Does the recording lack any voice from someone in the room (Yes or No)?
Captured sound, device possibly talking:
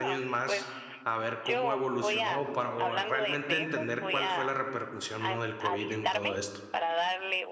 No